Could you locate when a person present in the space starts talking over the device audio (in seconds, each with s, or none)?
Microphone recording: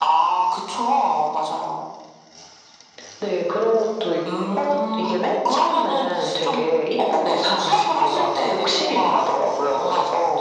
none